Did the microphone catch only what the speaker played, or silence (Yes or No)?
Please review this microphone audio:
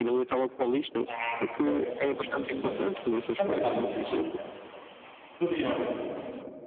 No